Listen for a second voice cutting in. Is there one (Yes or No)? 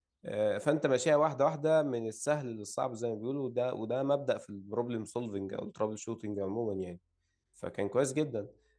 No